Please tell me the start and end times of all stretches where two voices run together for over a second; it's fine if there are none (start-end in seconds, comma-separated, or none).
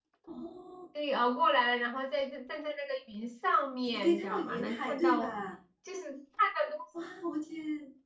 3.8-5.3